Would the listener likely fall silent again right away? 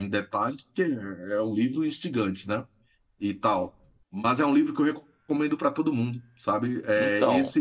Yes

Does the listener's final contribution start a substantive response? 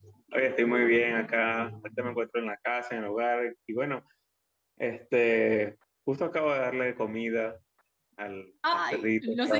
Yes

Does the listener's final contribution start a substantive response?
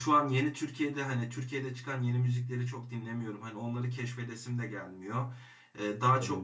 No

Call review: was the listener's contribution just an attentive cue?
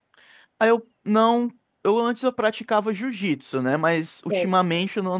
Yes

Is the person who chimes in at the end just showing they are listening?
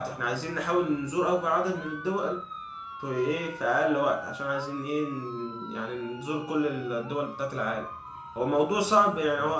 Yes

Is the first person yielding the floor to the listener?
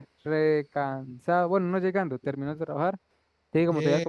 No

